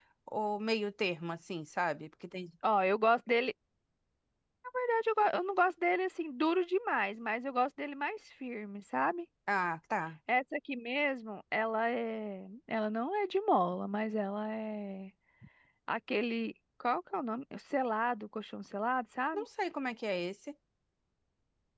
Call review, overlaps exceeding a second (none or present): none